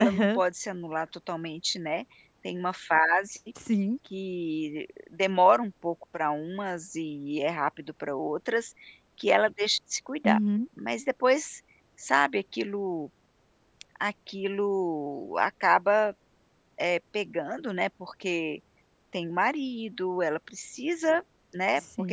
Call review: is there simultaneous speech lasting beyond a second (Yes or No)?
No